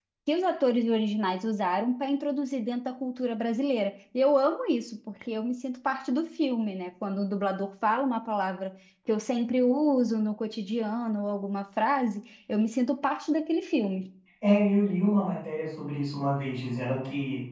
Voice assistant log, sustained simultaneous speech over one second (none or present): none